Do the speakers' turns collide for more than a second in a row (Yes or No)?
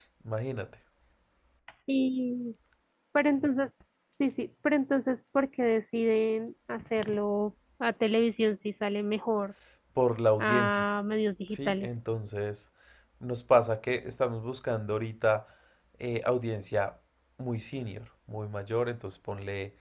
No